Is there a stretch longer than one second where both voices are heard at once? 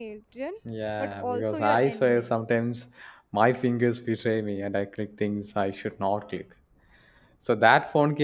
Yes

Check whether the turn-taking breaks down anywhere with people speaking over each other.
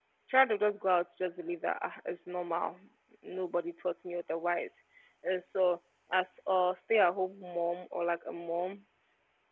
No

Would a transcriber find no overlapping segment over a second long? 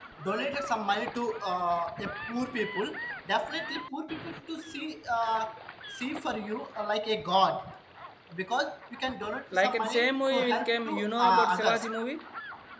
No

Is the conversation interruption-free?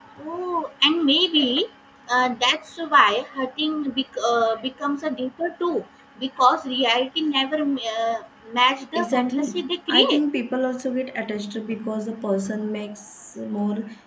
No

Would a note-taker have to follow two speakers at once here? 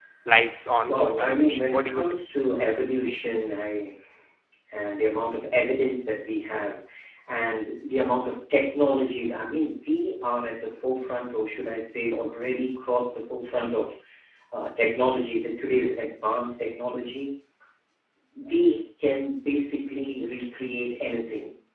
Yes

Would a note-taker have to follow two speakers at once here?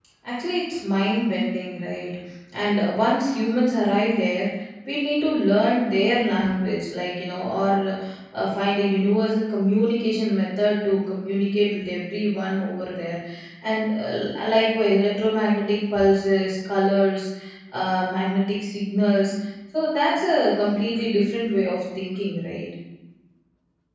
No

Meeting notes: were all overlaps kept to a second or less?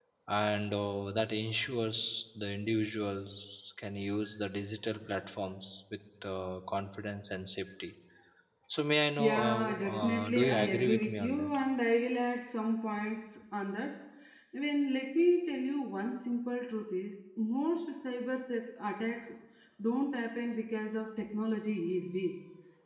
No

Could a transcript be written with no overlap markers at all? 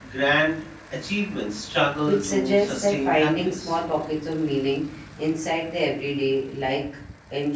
No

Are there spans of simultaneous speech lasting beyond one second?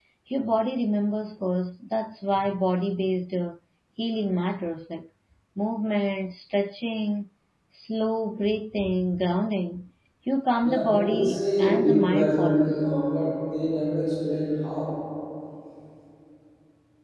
Yes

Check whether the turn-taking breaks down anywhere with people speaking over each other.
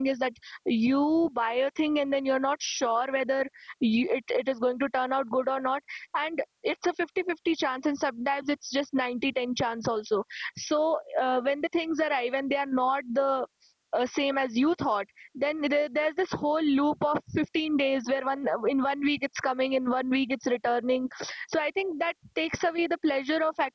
No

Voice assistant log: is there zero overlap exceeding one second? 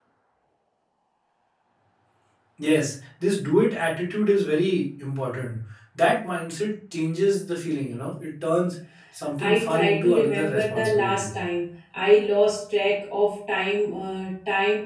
No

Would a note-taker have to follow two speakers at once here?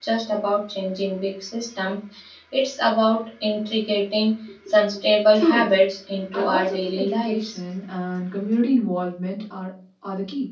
Yes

